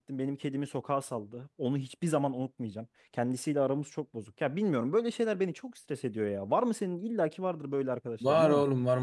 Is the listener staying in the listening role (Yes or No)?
No